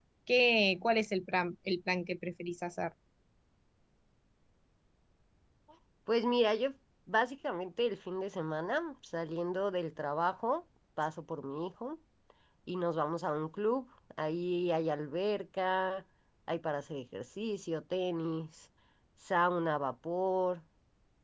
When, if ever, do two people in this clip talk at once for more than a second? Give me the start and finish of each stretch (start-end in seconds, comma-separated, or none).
none